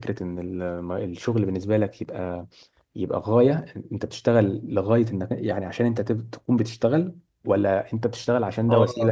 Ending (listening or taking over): taking over